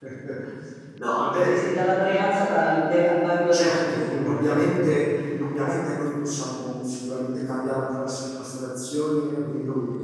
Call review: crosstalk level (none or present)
present